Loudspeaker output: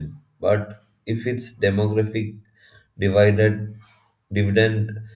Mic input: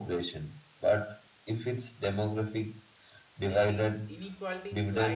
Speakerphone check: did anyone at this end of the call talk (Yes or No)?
Yes